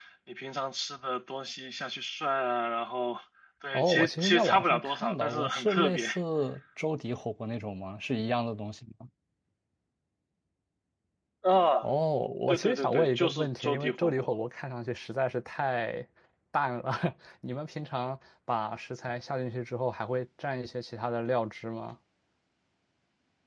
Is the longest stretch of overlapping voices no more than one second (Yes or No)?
No